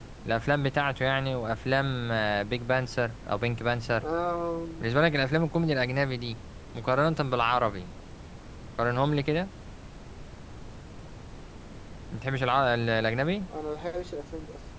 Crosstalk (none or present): none